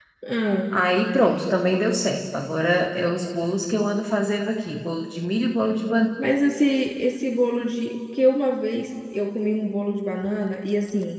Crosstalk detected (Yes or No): No